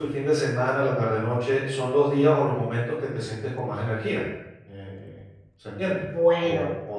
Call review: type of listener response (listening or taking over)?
taking over